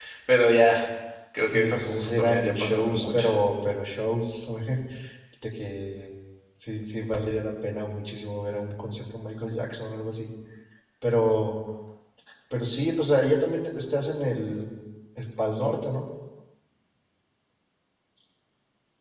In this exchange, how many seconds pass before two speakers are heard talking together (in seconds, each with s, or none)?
1.4 s